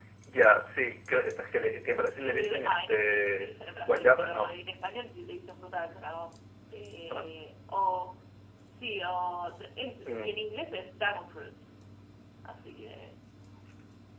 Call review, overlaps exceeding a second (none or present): present